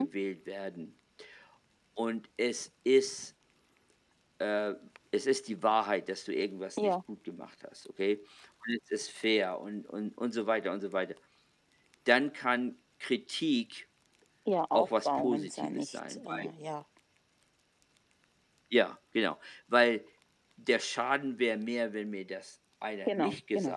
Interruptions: present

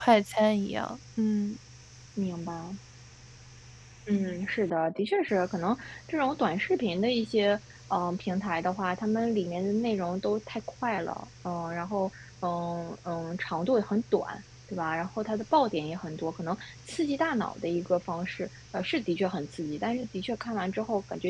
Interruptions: none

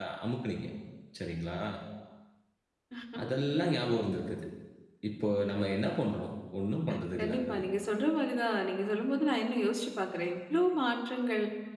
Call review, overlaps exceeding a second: none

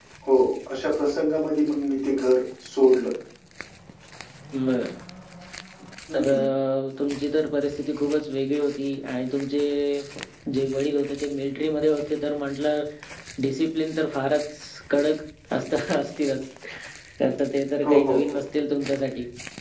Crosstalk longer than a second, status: none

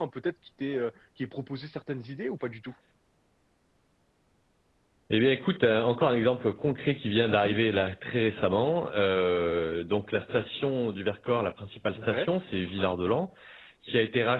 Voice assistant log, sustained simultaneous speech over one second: none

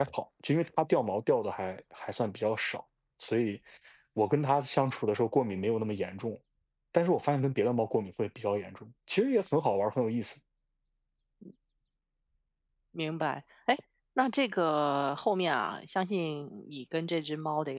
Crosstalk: none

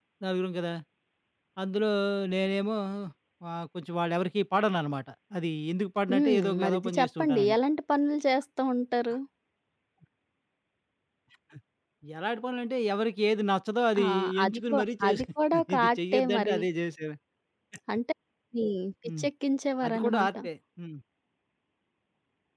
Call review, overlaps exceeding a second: present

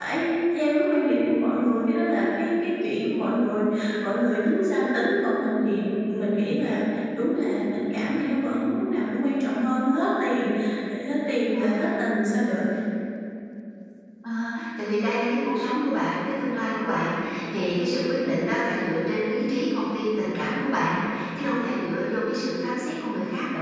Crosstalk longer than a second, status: none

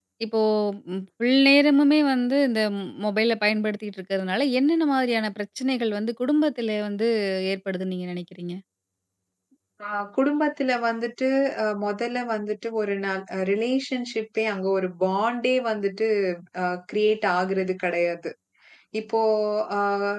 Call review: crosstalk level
none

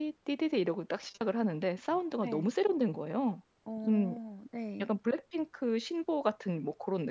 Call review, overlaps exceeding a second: none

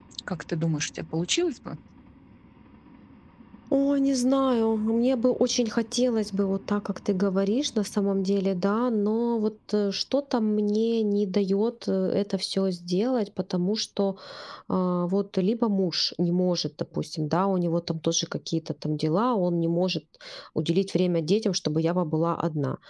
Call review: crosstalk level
none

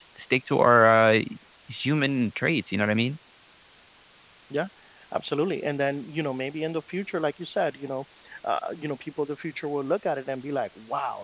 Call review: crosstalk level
none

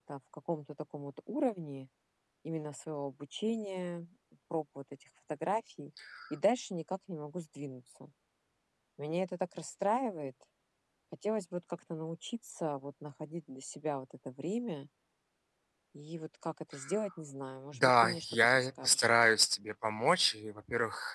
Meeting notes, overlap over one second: present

